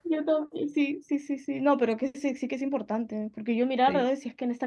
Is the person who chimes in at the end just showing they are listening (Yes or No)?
Yes